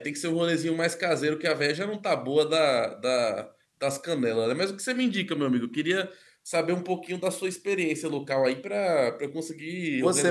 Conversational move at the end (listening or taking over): taking over